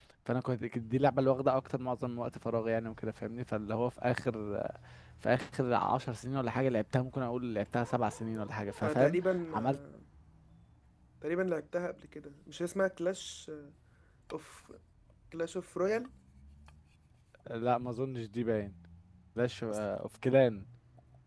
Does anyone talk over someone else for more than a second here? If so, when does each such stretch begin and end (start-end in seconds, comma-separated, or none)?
none